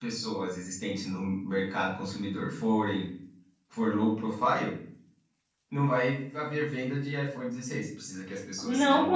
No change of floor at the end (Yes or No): No